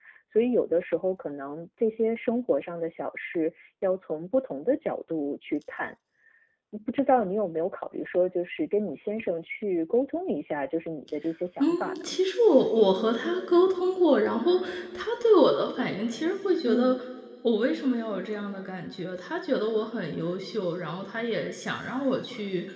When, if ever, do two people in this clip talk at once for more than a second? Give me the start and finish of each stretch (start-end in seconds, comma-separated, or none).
none